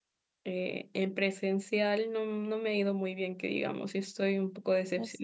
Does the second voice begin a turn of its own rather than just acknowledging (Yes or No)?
No